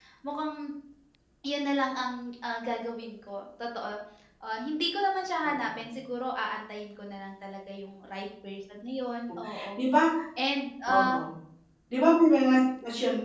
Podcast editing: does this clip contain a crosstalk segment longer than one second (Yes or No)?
No